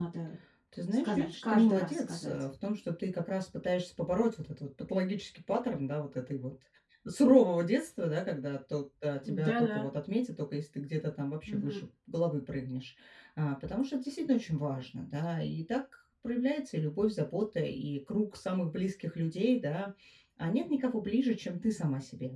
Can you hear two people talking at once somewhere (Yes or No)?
Yes